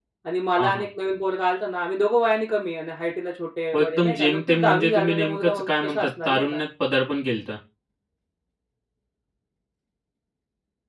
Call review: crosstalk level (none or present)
present